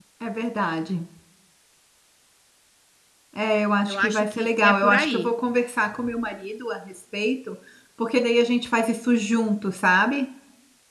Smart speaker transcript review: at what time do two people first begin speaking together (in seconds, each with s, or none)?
3.9 s